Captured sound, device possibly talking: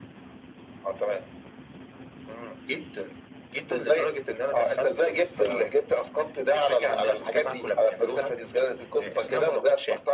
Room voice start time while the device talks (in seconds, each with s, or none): none